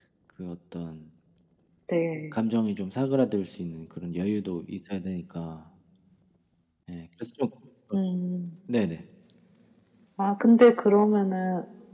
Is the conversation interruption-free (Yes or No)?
Yes